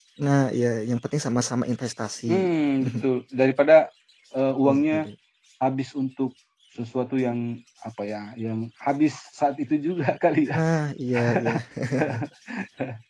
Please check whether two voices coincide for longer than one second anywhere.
No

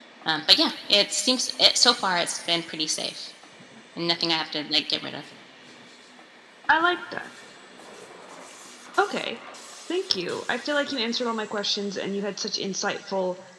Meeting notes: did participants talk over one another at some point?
No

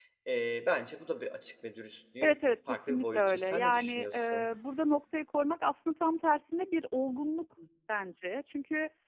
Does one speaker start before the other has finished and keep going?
Yes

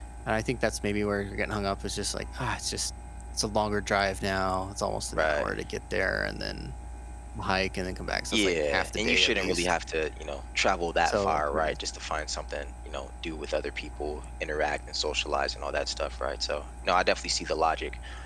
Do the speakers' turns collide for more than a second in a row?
Yes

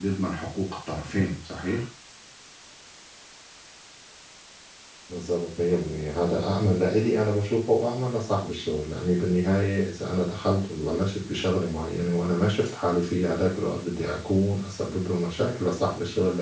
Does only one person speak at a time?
Yes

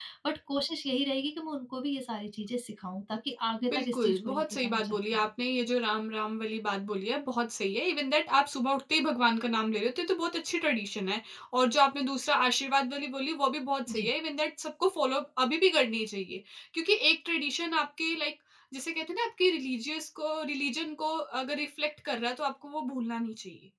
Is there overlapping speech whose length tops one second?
Yes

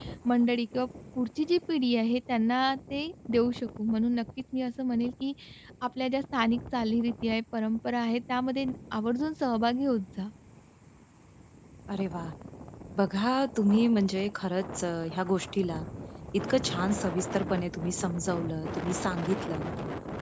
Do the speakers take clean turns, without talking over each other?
Yes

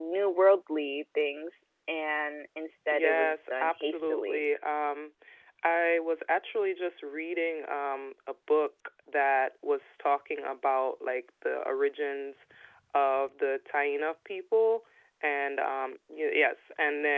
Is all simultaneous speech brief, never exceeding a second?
No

